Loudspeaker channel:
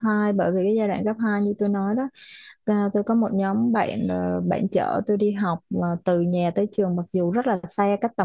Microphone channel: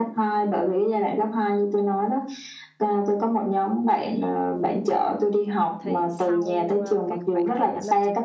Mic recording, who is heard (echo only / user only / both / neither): both